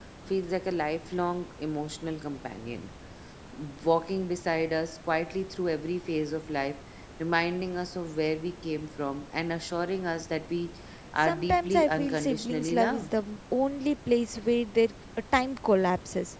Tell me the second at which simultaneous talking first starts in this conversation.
11.2 s

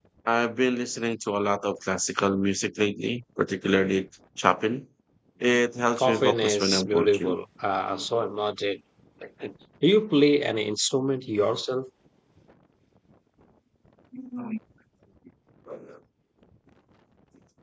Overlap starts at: 6.0 s

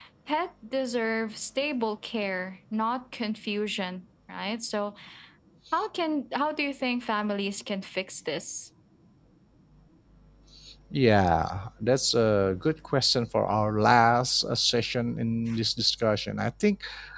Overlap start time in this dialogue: none

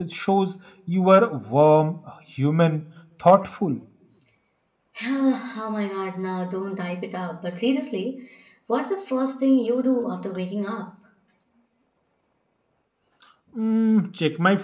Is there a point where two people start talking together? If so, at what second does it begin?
none

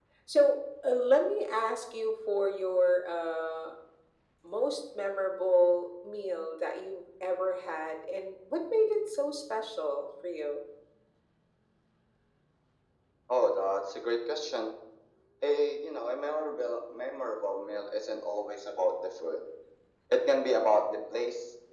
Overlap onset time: none

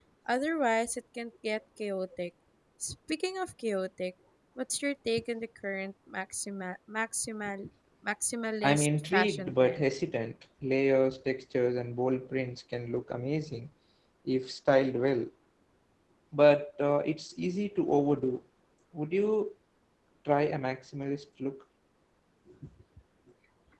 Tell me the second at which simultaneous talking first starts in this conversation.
8.6 s

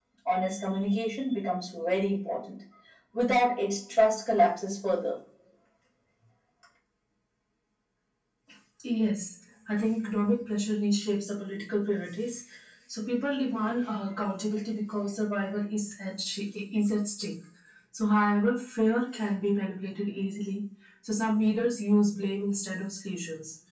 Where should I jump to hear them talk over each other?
none

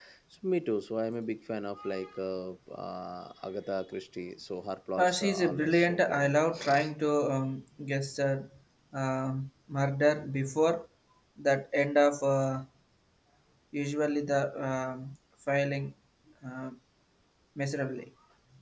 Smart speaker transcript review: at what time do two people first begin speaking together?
5.0 s

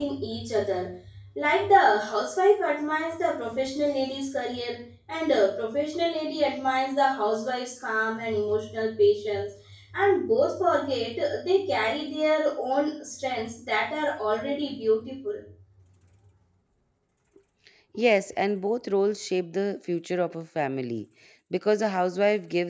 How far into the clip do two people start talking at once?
none

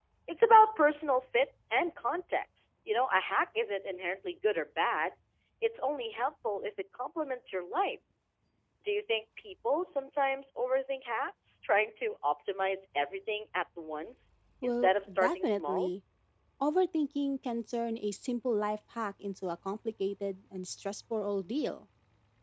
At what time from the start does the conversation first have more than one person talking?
14.6 s

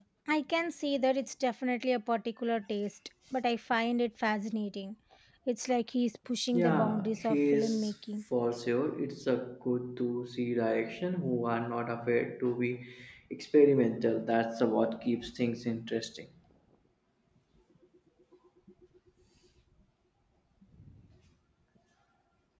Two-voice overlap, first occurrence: 6.5 s

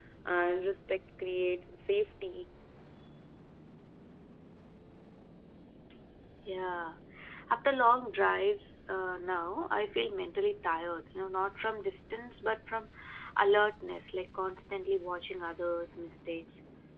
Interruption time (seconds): none

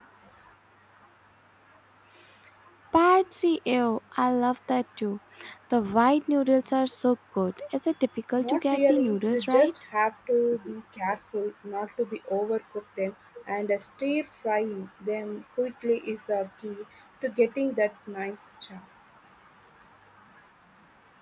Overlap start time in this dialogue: 8.4 s

